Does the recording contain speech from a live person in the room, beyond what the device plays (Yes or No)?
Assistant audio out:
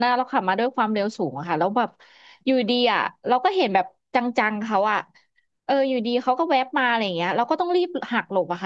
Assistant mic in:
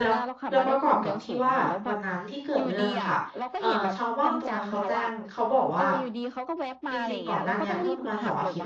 Yes